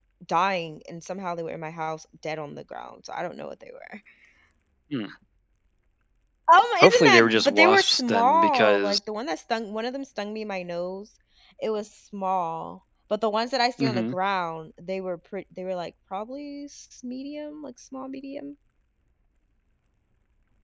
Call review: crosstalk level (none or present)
present